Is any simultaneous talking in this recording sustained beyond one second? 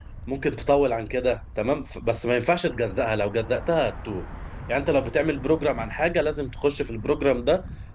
No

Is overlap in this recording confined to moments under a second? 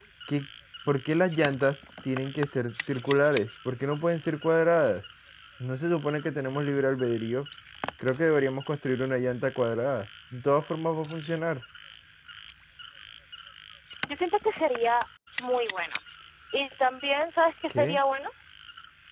Yes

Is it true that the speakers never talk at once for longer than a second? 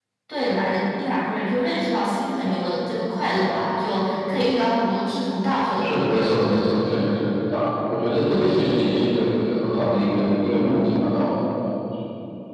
Yes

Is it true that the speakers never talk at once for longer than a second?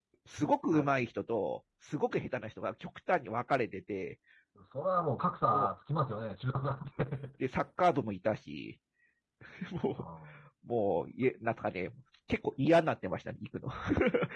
Yes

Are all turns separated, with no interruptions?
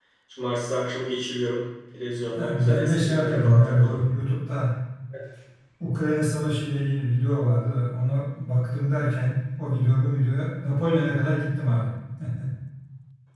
No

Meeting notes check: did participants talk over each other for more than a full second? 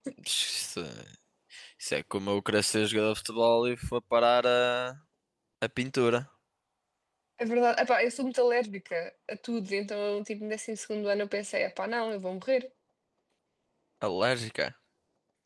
No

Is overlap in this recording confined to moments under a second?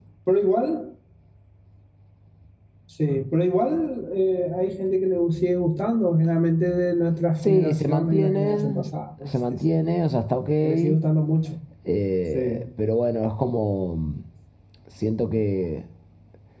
No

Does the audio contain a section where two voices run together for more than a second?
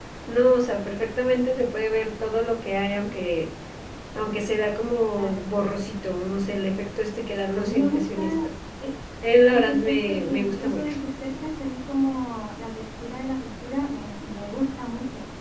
Yes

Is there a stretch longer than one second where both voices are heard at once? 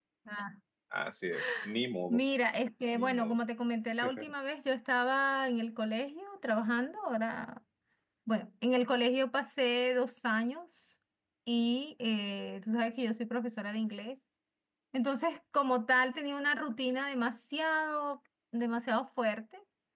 No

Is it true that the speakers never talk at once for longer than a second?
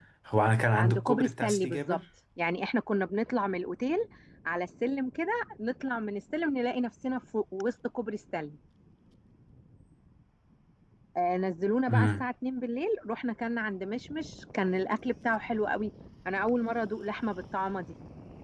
No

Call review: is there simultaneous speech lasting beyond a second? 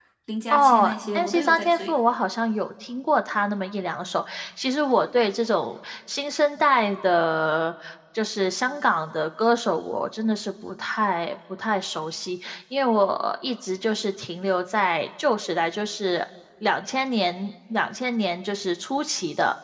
Yes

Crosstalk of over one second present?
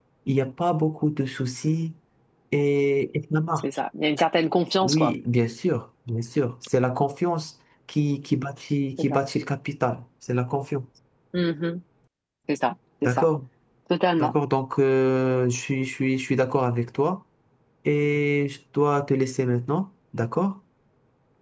No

